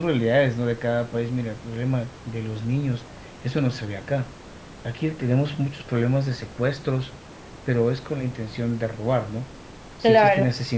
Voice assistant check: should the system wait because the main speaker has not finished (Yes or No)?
Yes